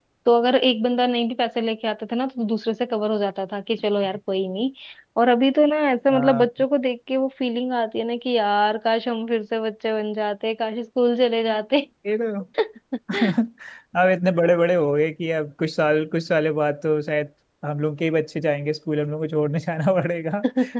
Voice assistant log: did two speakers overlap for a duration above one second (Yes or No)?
No